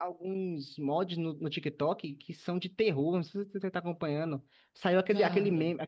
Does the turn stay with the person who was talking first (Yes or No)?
Yes